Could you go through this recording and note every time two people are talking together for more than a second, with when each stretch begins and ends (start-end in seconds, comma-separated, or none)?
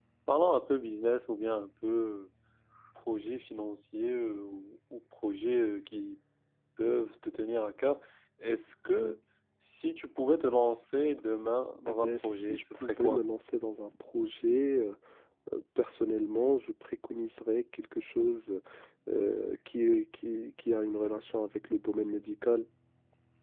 11.9-13.2